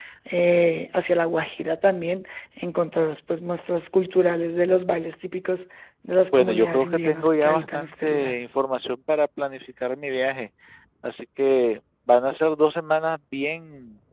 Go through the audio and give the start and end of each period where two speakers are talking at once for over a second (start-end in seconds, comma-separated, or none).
6.3-8.4